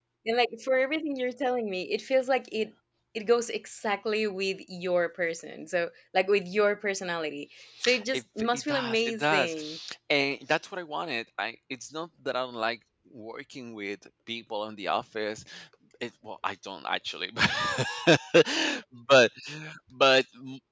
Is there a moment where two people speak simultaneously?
Yes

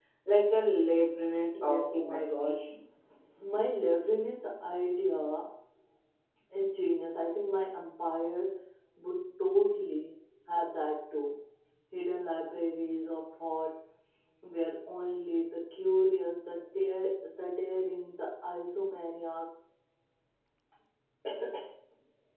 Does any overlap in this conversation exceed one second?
Yes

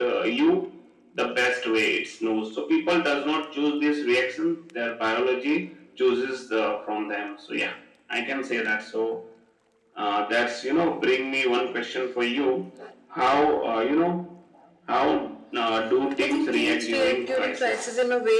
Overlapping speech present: Yes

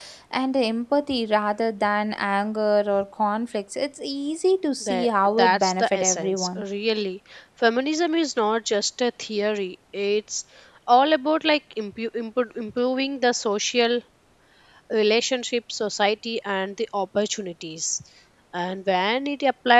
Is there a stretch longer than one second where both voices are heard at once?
Yes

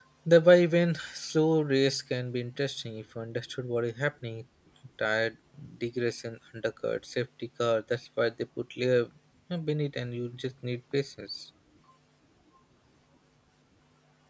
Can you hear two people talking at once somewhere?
No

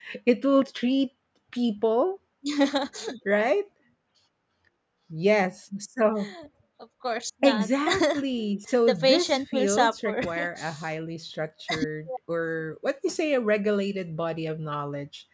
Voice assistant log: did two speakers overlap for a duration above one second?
Yes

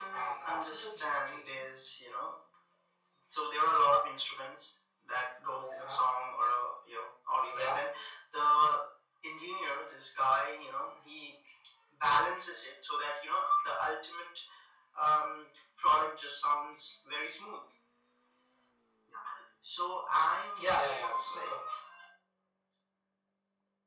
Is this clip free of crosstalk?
No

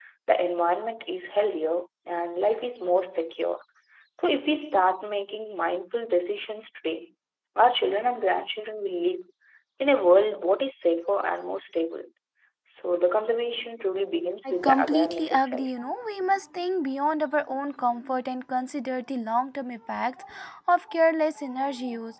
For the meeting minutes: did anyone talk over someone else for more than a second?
Yes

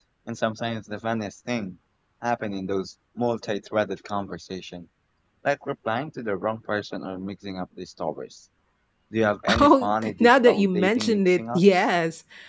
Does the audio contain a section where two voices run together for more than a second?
Yes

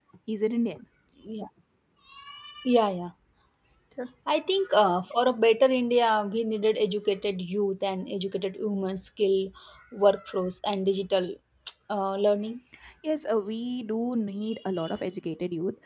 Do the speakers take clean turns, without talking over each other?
Yes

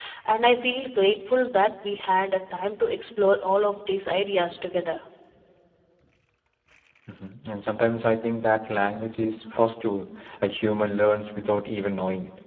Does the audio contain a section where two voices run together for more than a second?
No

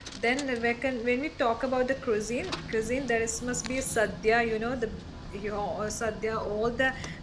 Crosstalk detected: No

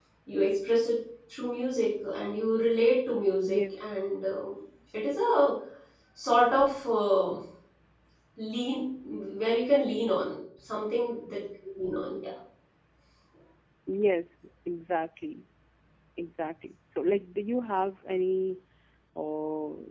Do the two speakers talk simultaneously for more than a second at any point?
No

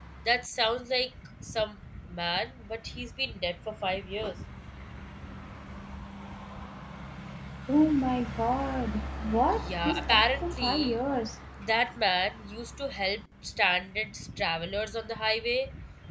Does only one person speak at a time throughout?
No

